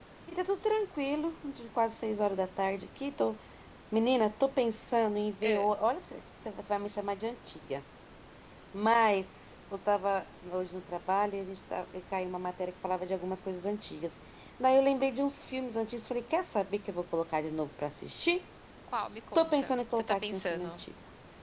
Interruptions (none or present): present